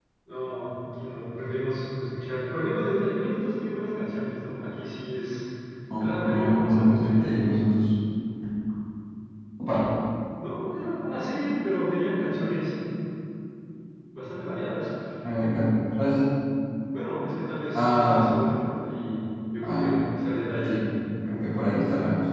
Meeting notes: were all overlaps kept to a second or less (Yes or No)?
No